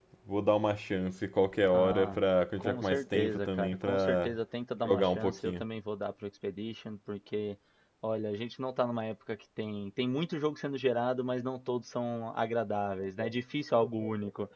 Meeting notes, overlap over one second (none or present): present